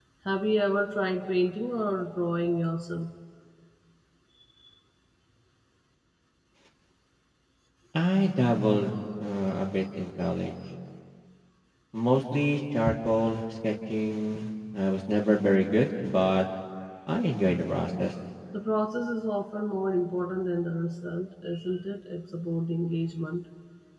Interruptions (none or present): none